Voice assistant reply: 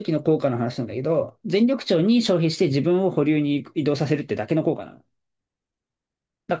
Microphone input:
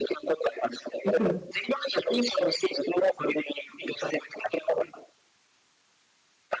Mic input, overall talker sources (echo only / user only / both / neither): both